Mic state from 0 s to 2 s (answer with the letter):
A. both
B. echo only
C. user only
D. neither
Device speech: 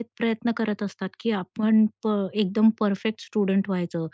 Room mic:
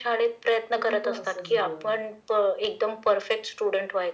A